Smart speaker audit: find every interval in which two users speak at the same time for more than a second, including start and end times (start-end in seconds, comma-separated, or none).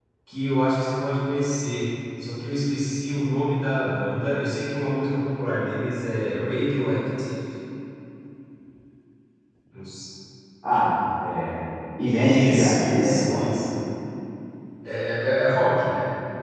12.0-13.4